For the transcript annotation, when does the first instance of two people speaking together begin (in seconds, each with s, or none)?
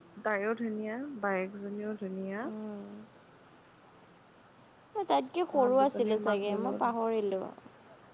5.5 s